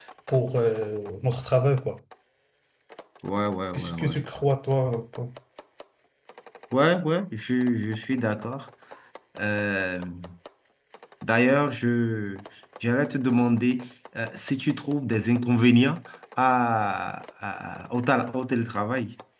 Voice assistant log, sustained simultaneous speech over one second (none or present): none